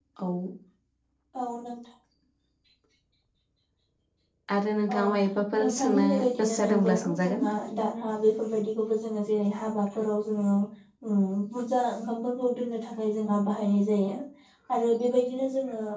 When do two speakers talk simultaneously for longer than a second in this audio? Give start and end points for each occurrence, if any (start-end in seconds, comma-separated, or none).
5.6-7.5